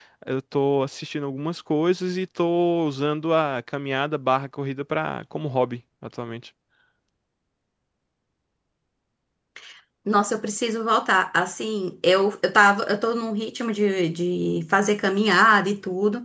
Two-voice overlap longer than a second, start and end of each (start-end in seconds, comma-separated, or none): none